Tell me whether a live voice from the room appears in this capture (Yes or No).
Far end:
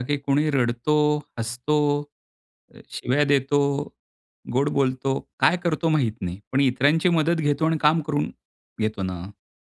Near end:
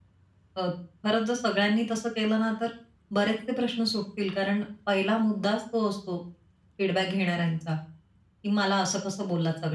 Yes